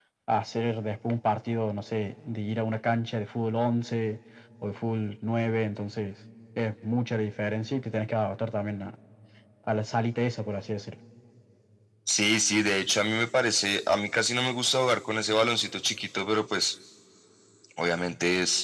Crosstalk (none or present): none